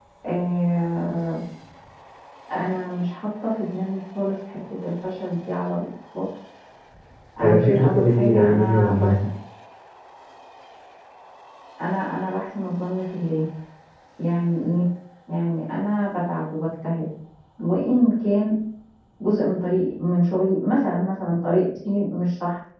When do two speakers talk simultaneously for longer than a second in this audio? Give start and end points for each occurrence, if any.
7.4-9.2

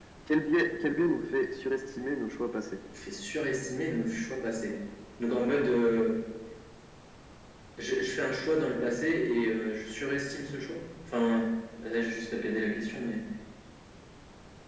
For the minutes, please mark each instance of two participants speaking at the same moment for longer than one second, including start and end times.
none

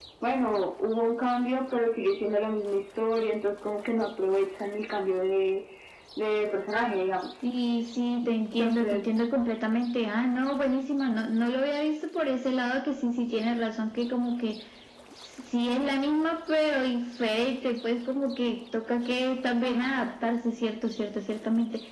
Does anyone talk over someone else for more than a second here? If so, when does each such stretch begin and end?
none

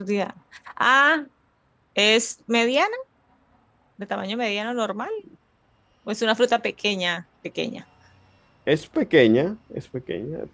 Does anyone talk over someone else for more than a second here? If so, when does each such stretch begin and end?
none

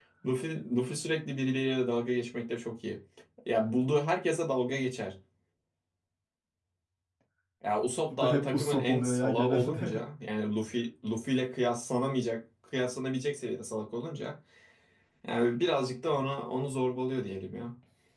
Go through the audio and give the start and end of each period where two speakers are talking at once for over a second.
8.1-9.9

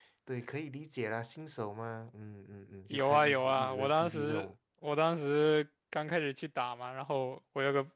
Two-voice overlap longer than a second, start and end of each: 2.9-4.5

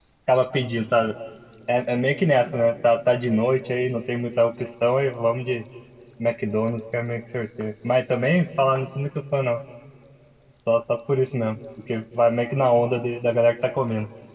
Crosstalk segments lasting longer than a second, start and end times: none

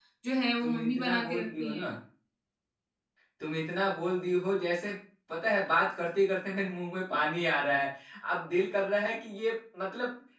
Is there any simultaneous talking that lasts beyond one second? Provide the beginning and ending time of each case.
0.6-1.9

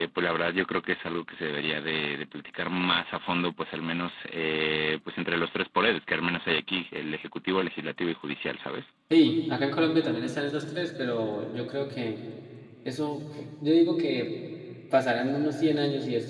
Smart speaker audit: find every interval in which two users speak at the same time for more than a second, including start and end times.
none

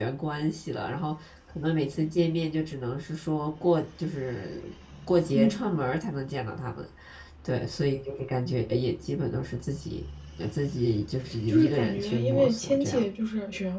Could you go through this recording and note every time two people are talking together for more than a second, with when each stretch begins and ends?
11.5-13.1

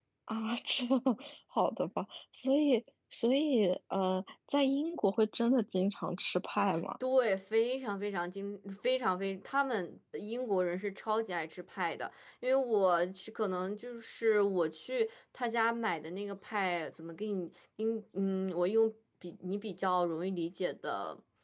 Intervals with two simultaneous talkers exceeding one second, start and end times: none

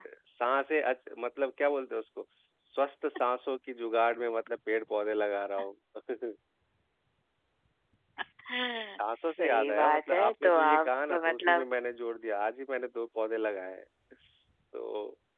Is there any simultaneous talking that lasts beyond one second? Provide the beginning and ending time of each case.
9.2-11.7

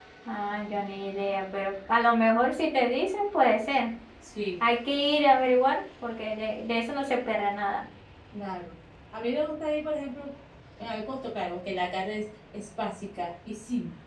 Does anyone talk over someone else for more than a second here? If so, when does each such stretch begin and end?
none

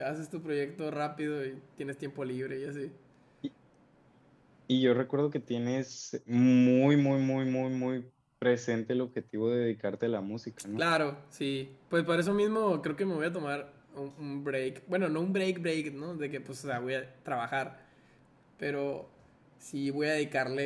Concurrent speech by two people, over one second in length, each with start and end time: none

